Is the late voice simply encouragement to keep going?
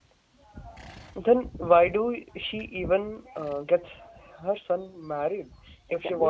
No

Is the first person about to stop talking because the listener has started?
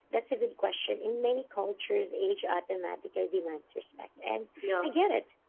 No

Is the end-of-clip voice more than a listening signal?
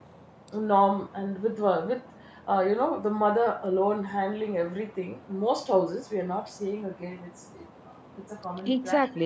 Yes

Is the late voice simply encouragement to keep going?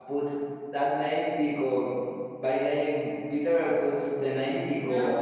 Yes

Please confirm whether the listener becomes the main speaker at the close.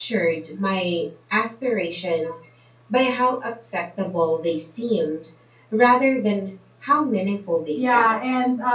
Yes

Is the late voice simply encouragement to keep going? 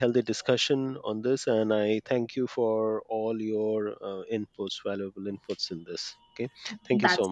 No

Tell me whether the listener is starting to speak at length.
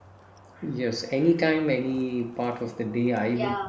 No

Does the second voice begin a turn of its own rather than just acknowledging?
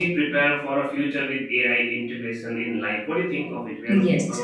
Yes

